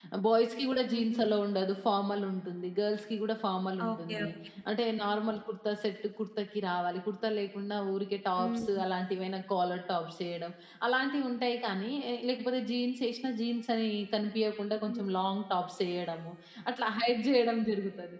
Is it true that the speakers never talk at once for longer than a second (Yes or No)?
Yes